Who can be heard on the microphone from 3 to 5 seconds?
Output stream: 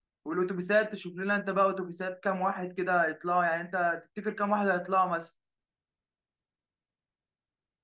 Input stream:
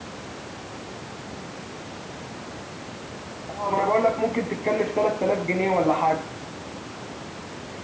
user only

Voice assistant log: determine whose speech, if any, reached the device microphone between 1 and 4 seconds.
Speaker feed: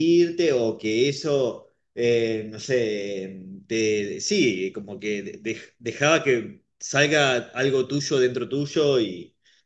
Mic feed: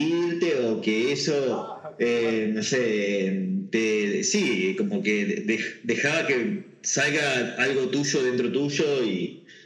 both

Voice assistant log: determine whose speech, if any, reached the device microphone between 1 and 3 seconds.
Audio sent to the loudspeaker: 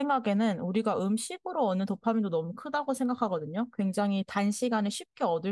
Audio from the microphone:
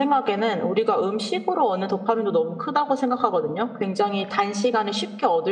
echo only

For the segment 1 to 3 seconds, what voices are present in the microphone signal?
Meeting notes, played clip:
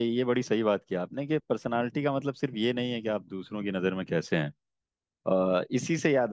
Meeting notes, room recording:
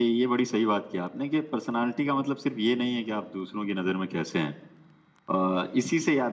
echo only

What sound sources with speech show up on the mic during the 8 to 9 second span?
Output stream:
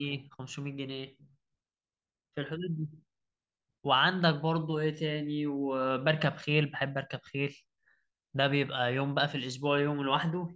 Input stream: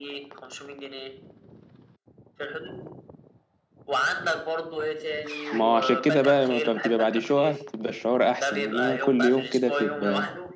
both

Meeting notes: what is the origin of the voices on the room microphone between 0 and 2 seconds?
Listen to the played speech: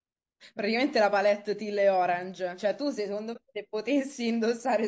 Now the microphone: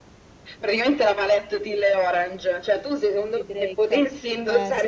echo only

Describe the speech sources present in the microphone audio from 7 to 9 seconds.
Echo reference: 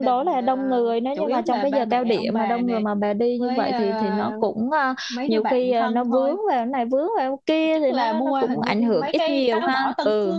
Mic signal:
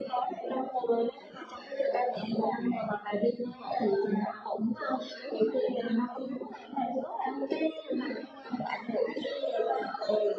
echo only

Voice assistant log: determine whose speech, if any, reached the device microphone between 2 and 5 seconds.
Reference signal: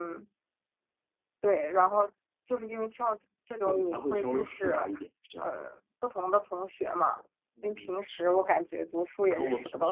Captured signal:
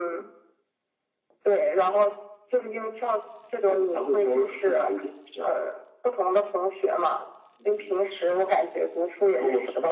echo only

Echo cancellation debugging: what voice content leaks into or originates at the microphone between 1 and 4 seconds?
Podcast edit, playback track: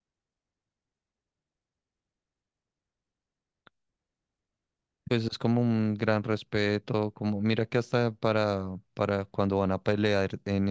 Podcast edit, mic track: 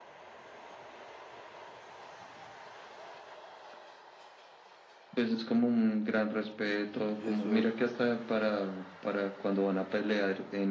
neither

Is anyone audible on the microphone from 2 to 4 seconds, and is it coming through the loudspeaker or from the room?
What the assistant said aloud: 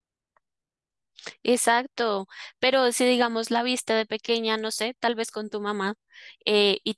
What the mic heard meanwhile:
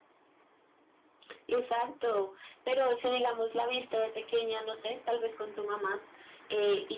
echo only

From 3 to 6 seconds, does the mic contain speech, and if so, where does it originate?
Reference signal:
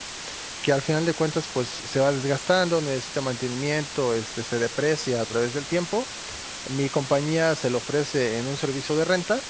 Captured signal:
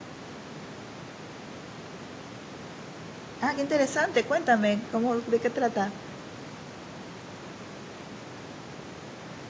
user only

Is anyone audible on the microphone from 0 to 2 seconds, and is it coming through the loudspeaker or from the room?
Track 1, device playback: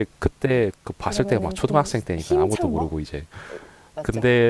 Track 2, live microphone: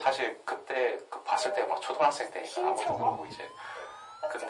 echo only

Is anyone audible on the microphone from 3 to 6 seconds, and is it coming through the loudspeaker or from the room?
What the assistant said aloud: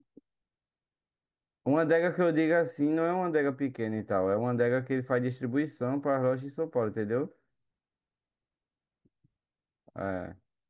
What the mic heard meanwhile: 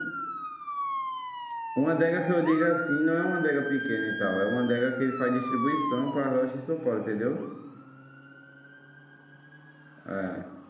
echo only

